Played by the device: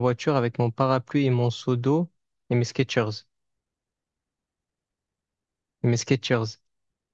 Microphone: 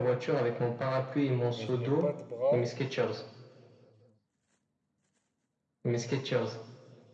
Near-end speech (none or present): present